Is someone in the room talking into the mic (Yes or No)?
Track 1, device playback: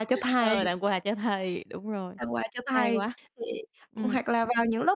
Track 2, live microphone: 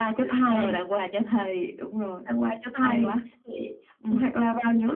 No